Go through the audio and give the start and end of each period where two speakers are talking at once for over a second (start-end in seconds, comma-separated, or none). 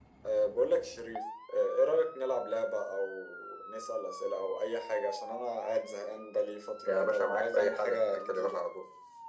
6.9-8.6